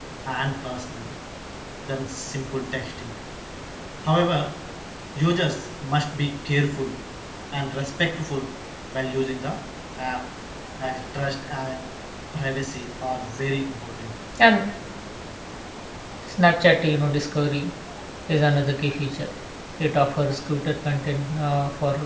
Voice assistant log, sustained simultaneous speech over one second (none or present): none